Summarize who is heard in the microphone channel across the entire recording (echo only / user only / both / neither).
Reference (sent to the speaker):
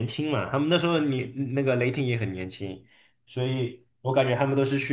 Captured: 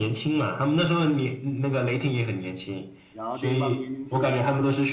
both